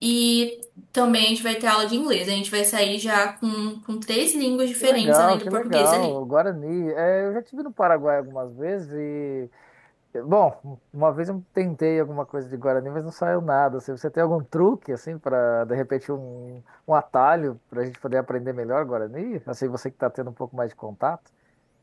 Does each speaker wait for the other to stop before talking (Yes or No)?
No